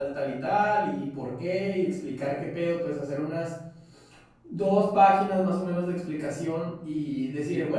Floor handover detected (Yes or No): No